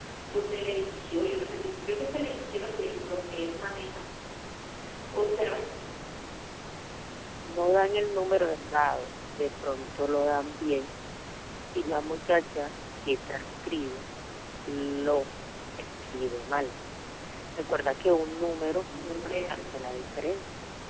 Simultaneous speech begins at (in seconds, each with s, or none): none